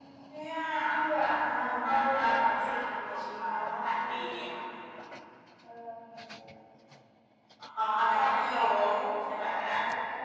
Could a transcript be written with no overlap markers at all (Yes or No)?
No